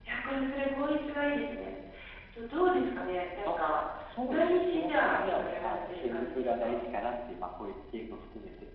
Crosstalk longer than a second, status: present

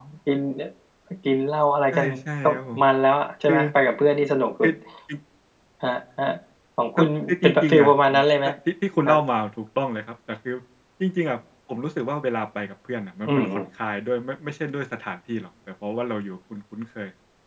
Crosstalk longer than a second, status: present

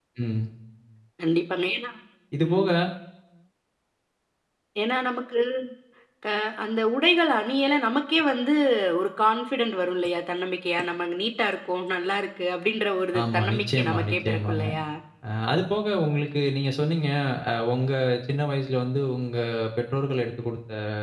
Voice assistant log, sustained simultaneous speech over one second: present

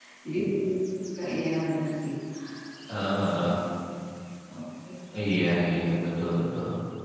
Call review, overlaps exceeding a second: none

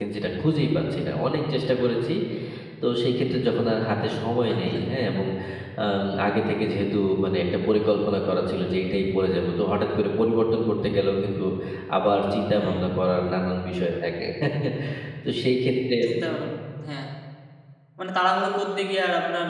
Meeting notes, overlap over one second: none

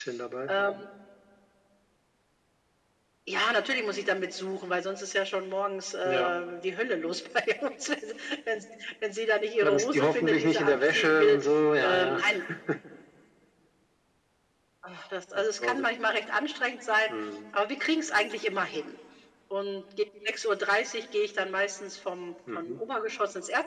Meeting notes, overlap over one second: present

